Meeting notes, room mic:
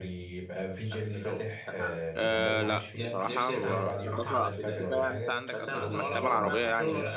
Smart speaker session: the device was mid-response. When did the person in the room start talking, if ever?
2 s

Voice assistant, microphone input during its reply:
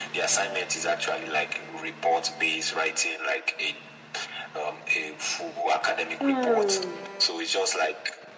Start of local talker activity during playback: 6 s

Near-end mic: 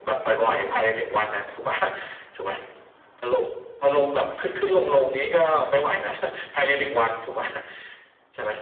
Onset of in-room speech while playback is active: none

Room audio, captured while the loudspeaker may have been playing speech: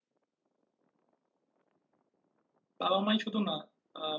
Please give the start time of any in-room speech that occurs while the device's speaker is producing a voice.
3 s

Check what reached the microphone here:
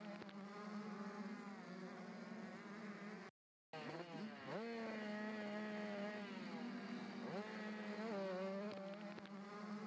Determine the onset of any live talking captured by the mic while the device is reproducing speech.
none

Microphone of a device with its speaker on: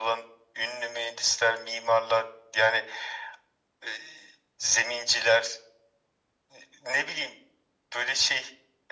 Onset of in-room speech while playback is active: none

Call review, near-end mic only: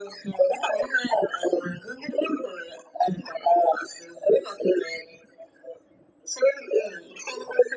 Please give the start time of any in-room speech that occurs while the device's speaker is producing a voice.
none

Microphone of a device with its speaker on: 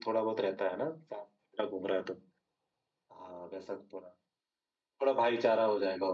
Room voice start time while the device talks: none

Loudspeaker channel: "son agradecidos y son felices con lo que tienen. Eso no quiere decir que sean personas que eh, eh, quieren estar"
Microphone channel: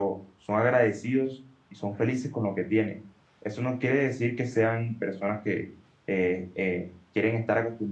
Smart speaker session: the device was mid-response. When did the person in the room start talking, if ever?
none

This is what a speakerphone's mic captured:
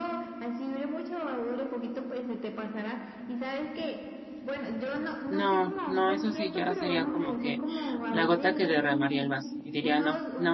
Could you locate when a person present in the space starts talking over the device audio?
5 s

